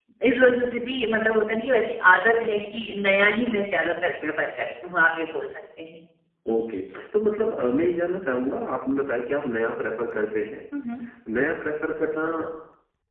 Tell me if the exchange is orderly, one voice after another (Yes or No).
Yes